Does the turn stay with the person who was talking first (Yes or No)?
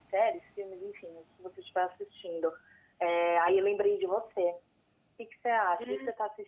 Yes